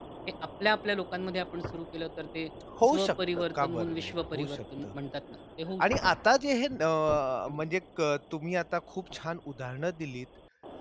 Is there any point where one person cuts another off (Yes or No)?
Yes